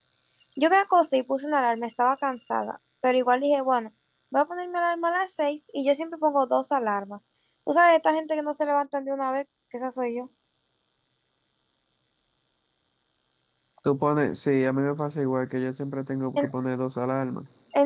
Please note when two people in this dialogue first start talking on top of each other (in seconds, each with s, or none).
none